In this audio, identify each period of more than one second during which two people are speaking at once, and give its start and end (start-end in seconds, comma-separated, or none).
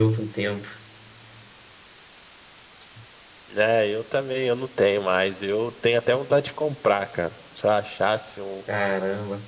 none